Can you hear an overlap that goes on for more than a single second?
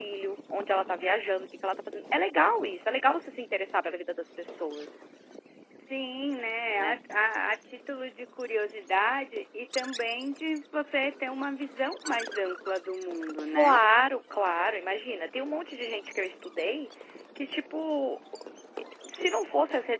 No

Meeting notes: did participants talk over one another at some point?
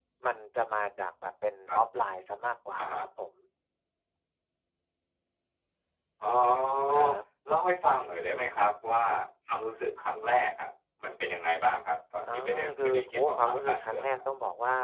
Yes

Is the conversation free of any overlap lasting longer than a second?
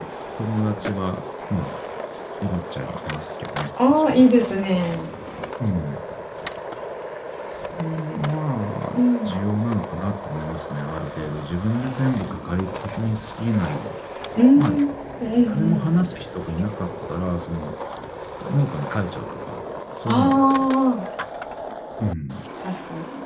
Yes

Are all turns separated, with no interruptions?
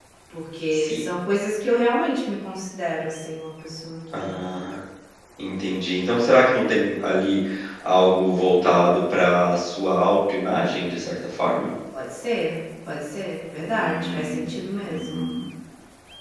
No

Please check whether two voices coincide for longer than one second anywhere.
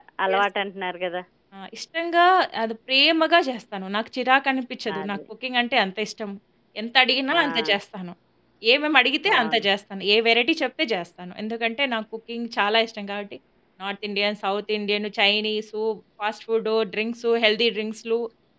No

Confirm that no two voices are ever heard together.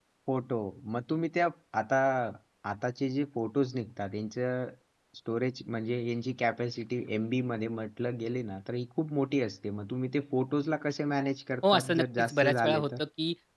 No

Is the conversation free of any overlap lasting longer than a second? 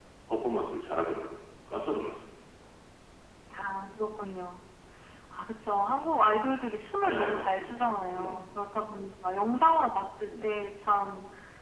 No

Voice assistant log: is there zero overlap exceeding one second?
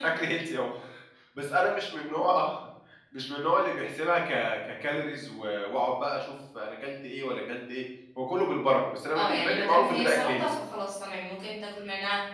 No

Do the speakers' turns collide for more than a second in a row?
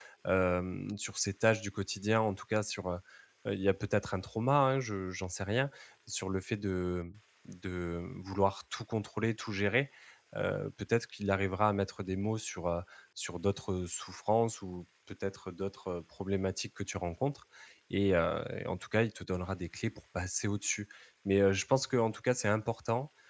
No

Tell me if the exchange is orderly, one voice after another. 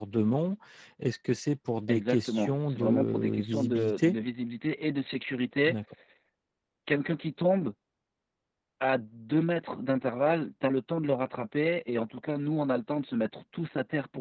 No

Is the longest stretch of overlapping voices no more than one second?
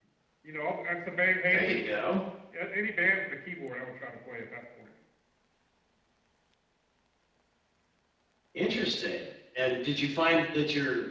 Yes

